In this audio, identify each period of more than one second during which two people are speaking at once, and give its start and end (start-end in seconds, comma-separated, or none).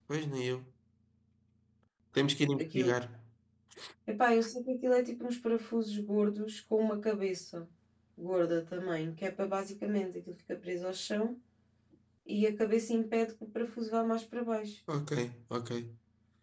none